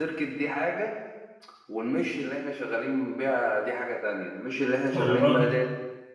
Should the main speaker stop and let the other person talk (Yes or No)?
No